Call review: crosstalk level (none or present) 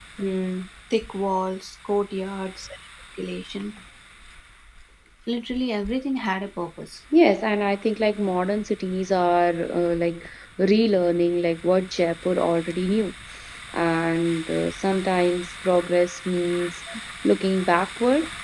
none